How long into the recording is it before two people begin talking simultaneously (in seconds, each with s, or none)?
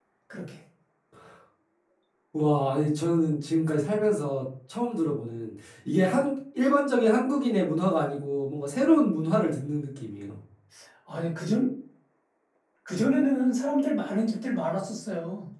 none